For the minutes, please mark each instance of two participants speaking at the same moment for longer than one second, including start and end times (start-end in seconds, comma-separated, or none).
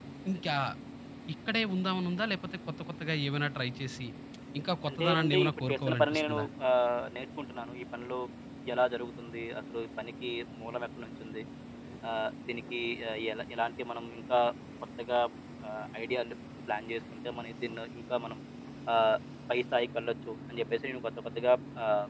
4.9-6.4